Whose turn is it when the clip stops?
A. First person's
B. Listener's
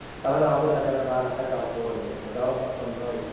A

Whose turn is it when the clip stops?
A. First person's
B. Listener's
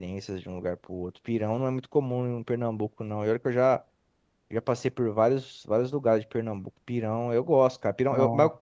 A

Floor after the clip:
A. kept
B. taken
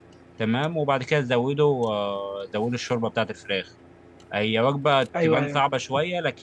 A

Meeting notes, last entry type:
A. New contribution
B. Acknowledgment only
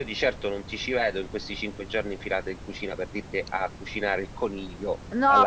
A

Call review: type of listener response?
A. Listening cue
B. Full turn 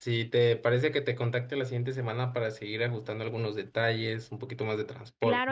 B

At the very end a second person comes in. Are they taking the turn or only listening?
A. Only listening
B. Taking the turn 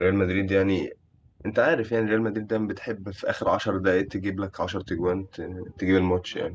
A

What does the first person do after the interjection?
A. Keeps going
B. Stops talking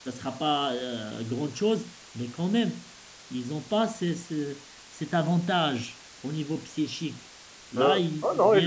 B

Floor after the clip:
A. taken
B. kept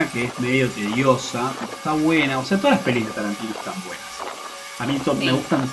B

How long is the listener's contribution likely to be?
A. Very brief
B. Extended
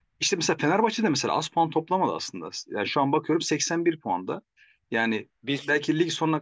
A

